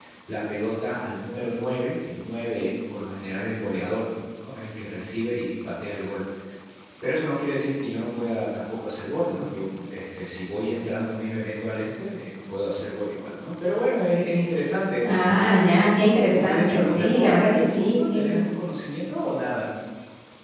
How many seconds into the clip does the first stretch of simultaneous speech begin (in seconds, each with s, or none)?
16.3 s